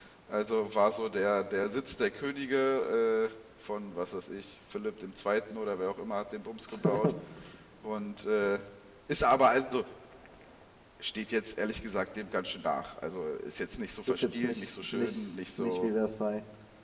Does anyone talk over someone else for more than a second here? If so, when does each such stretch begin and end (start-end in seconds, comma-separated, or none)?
14.1-15.9